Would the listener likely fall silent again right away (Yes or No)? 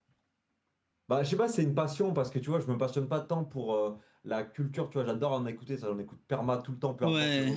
Yes